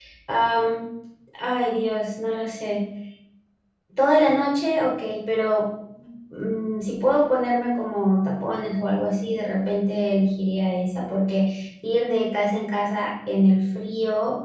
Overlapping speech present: No

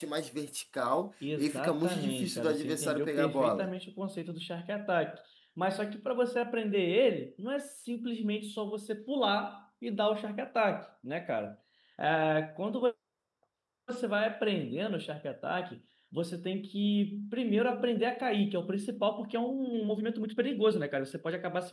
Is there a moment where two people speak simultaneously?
Yes, from 1.2 s

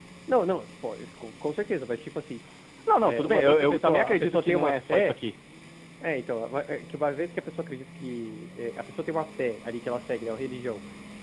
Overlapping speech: Yes, from 3.0 s

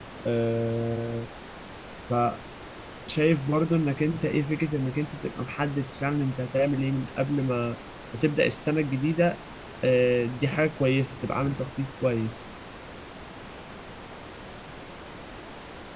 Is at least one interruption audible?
No

